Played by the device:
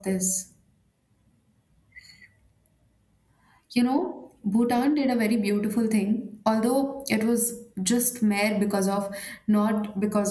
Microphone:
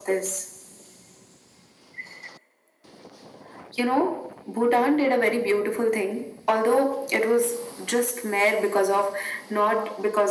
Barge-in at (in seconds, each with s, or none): none